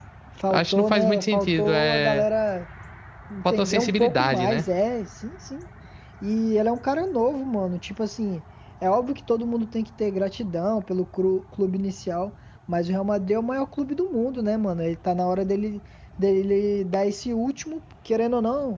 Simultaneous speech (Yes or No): Yes